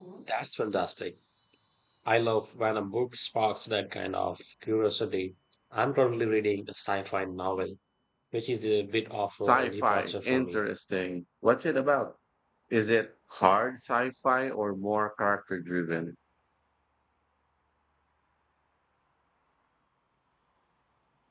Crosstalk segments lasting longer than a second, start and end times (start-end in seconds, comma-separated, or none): 9.4-10.6